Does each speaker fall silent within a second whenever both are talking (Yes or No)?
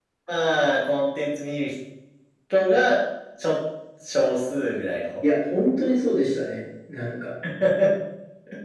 Yes